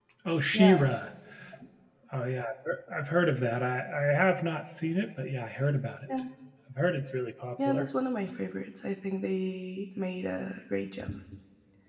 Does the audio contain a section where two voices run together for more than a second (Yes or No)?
No